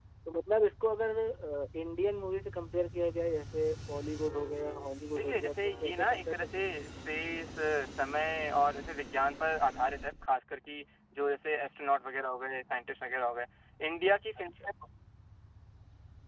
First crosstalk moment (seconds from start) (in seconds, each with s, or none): 5.2 s